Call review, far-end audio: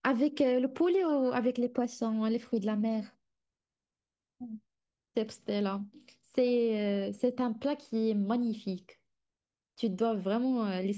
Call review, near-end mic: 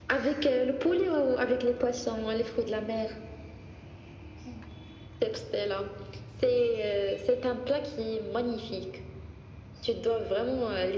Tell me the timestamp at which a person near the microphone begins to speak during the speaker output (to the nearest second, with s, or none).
none